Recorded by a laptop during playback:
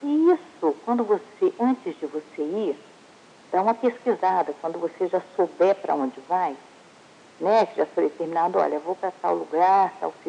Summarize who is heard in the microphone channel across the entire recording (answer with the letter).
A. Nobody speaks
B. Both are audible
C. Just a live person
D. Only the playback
D